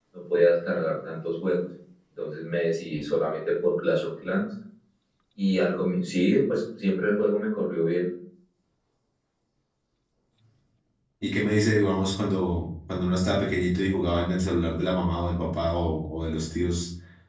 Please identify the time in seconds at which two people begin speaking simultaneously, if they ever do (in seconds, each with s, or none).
none